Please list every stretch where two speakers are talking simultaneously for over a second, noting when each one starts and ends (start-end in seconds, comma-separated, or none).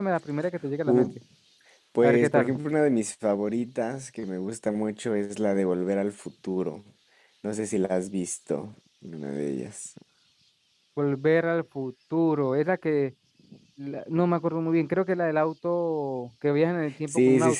none